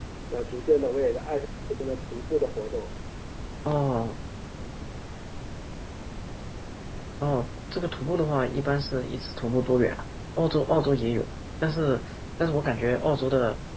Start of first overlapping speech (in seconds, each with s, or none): none